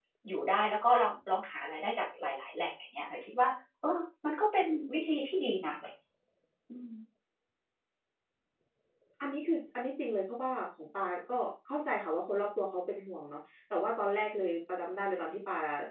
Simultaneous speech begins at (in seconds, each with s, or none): none